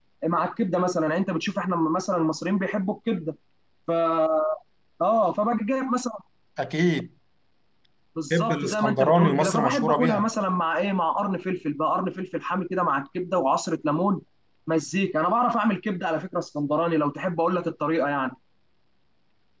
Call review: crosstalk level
present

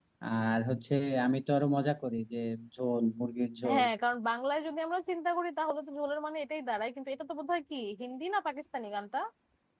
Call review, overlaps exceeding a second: none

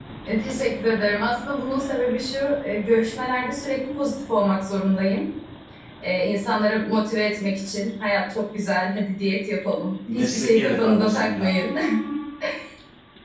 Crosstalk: present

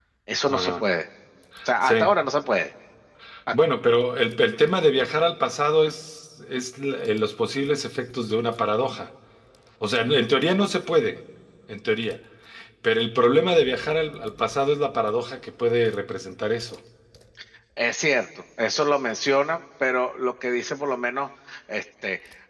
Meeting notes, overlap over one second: none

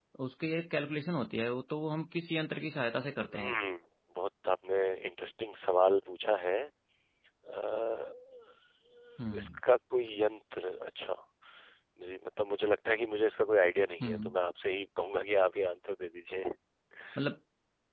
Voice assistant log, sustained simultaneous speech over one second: none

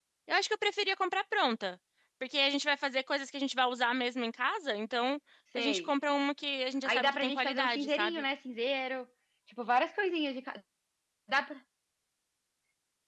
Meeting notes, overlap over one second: present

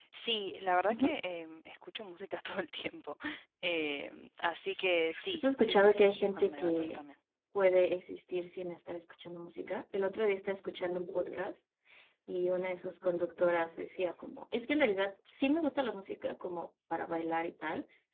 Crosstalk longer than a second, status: present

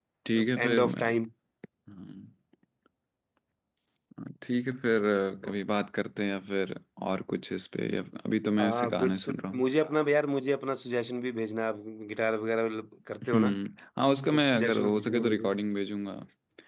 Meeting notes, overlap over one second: present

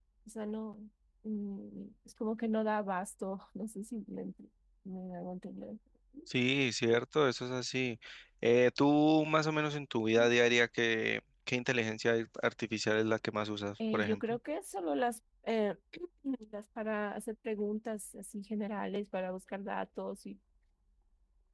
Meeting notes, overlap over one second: none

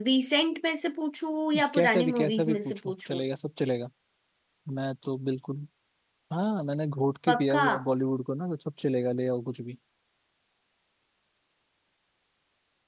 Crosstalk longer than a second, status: present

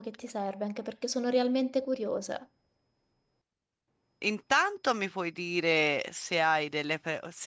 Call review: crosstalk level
none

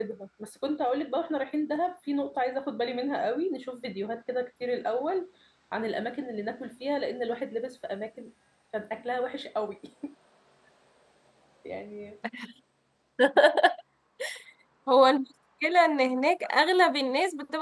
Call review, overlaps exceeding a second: none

